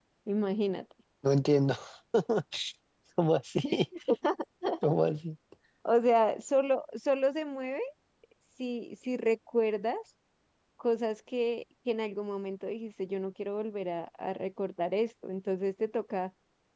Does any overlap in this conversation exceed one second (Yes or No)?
No